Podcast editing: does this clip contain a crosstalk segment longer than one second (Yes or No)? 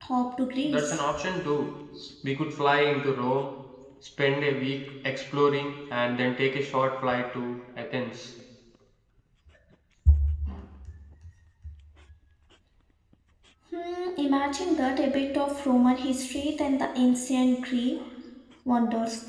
No